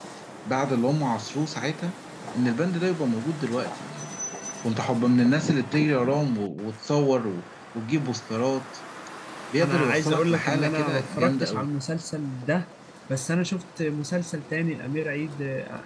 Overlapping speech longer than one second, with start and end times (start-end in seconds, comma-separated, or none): 9.6-11.7